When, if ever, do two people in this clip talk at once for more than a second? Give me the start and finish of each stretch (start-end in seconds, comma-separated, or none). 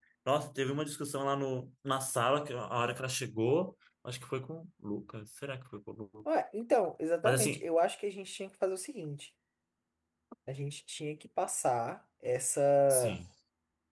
none